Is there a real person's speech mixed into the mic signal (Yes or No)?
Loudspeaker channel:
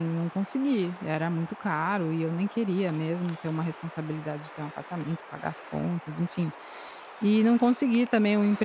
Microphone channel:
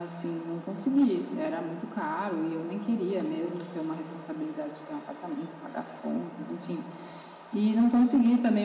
No